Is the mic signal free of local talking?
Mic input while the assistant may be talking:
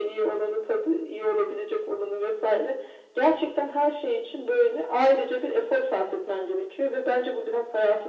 Yes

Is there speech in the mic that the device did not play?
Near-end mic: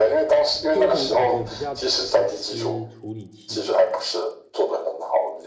Yes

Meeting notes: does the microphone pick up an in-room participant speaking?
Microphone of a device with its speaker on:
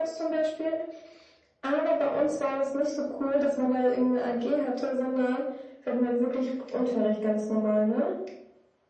No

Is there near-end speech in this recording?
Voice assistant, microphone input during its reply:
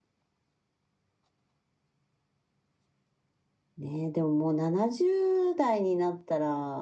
Yes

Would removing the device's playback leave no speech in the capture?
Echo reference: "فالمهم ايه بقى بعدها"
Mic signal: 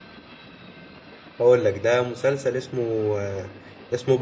No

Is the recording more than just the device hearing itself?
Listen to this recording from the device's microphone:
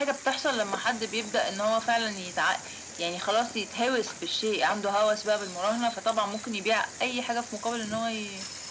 No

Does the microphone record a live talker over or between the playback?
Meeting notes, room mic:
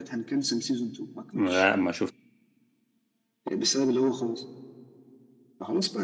Yes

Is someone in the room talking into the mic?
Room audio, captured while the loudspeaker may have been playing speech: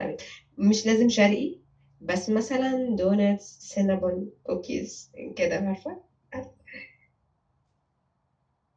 Yes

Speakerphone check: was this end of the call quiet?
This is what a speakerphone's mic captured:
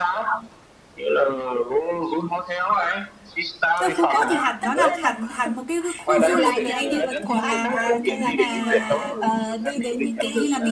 No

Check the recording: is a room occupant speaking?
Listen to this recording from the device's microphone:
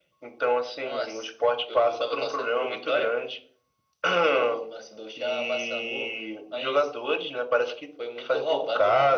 No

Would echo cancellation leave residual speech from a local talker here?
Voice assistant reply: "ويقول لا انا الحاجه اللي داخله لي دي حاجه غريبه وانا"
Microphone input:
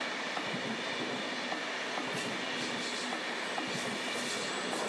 No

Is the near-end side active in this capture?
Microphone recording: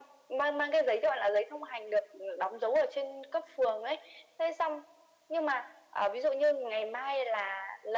No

